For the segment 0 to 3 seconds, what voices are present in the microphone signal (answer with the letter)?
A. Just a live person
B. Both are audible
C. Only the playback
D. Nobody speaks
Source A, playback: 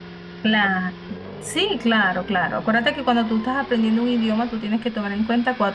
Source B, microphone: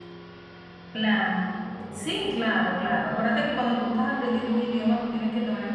C